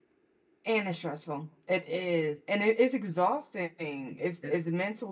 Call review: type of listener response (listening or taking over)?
listening